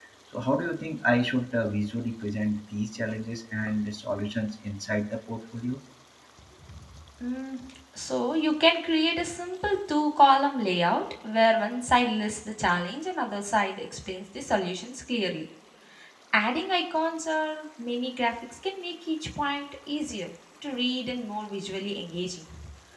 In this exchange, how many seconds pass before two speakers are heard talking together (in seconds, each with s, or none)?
none